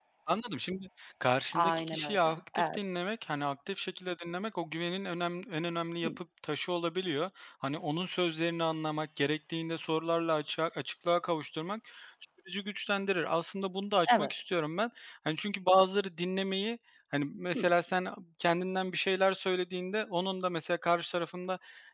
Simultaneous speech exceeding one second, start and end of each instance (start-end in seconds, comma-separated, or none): 1.5-2.8